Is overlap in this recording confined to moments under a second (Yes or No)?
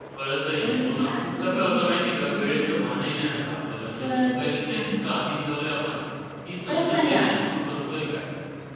No